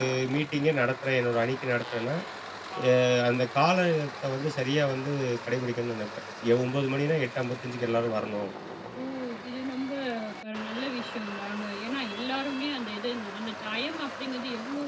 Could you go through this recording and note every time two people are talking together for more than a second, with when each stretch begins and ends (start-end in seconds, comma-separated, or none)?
none